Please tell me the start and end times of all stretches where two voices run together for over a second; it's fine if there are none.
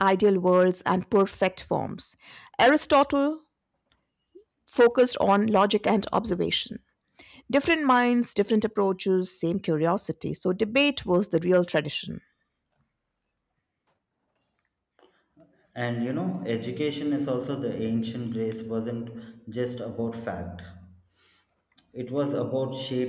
none

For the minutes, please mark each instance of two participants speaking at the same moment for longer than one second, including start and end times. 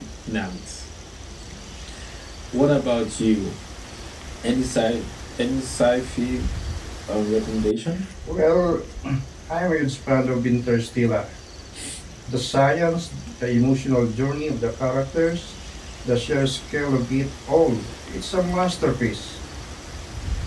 none

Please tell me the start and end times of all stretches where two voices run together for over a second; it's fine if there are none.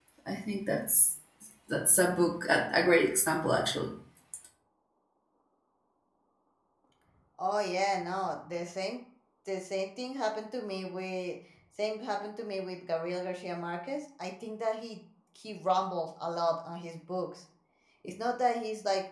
none

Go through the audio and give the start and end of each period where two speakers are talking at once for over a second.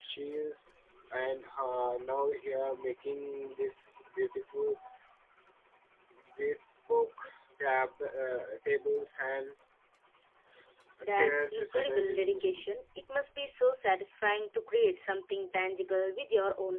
11.1-12.6

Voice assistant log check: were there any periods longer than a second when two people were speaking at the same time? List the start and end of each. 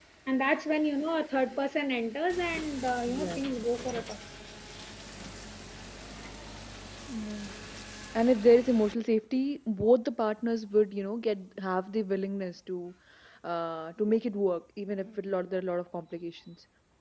none

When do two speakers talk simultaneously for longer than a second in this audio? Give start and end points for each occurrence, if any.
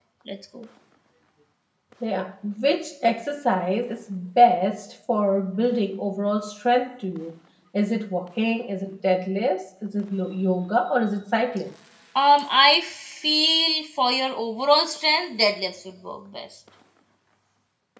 none

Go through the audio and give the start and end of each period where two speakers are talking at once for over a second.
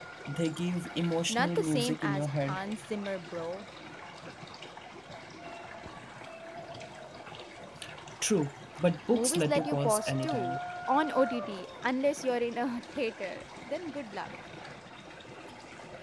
1.3-2.6, 9.1-10.6

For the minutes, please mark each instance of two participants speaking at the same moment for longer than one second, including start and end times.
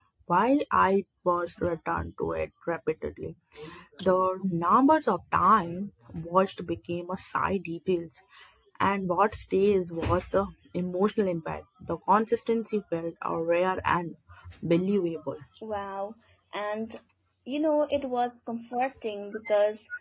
none

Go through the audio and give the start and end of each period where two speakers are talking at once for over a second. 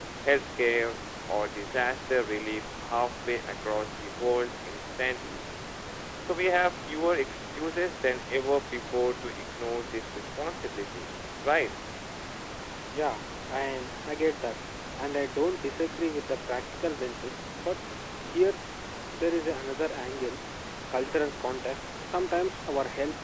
none

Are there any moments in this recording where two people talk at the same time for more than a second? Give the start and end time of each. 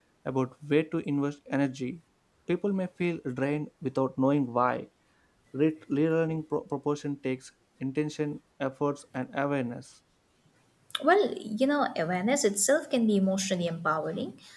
none

